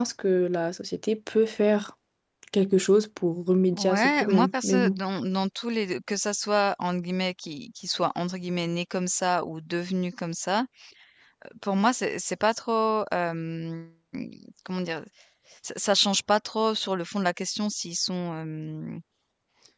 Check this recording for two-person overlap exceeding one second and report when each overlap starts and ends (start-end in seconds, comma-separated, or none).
3.7-4.9